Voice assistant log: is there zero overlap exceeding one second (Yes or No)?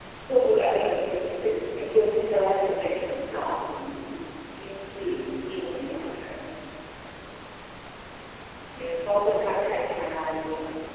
Yes